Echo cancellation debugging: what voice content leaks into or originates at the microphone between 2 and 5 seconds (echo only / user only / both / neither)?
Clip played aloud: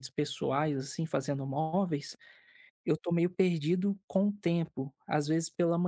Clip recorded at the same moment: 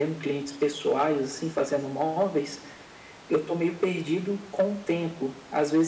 echo only